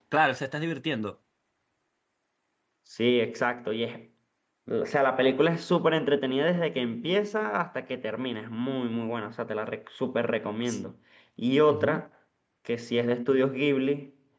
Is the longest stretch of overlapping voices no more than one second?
Yes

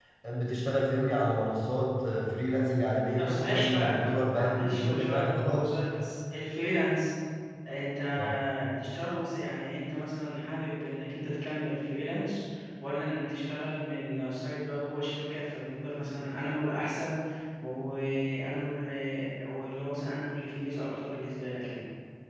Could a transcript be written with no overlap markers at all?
No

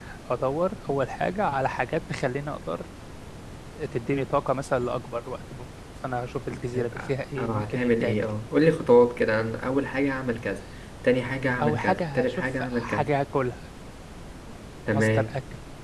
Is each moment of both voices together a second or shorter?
No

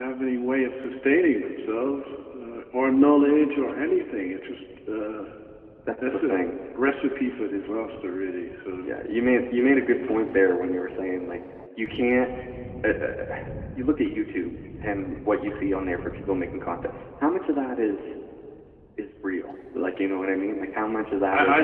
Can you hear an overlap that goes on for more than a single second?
No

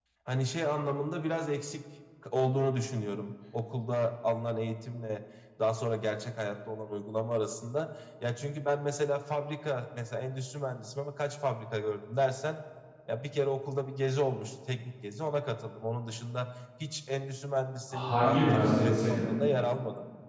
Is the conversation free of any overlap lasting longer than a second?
No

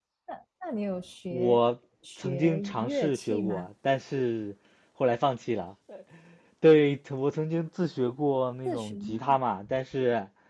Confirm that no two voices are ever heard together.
No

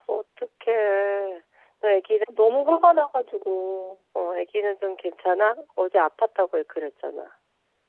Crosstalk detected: No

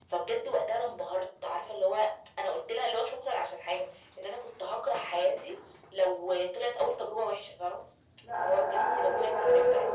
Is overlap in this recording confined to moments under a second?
No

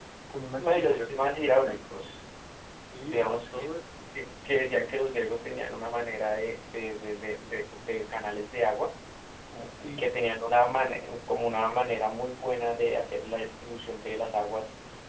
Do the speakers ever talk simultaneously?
Yes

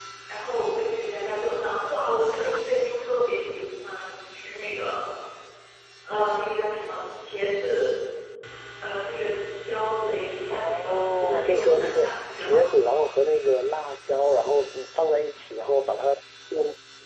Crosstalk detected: Yes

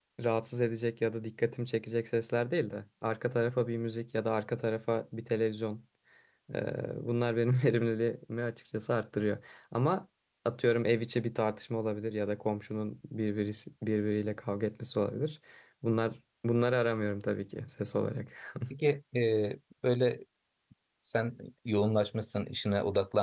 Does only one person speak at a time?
Yes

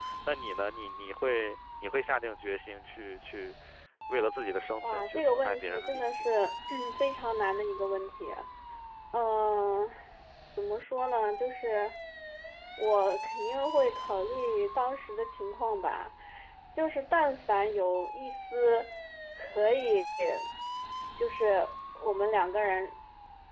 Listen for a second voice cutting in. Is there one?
Yes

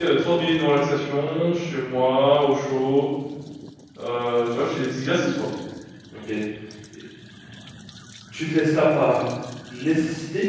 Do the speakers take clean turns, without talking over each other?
Yes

